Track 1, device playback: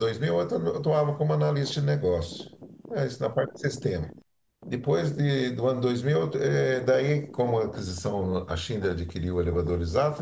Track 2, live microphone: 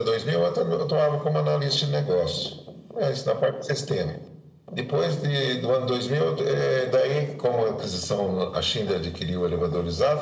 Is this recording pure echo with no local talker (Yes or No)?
Yes